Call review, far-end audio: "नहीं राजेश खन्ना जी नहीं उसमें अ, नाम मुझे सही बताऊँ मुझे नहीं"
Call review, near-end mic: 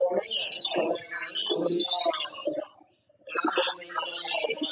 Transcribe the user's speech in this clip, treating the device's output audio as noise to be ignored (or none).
none